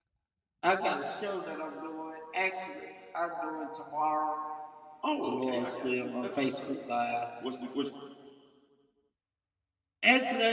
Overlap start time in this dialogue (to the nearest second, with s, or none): 5 s